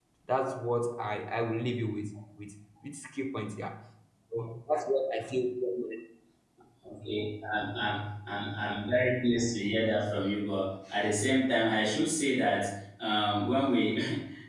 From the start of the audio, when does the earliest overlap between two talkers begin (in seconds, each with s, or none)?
none